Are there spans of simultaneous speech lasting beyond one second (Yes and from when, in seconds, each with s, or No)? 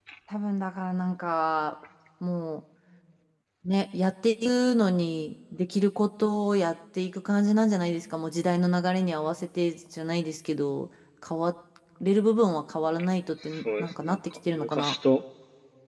Yes, from 13.5 s